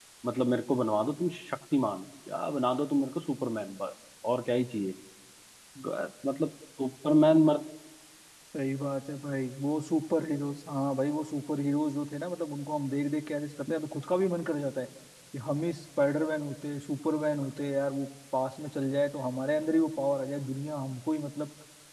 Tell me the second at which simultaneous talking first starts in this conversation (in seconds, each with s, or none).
none